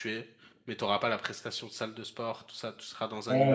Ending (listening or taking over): taking over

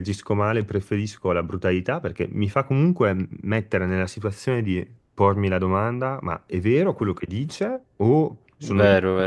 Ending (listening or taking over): listening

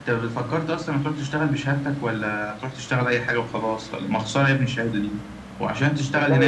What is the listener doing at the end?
listening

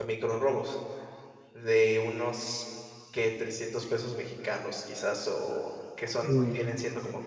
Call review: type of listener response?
listening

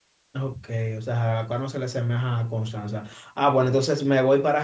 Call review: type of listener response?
listening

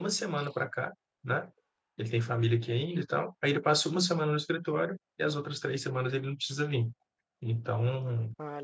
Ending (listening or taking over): listening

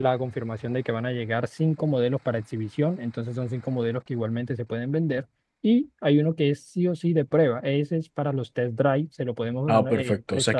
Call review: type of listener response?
taking over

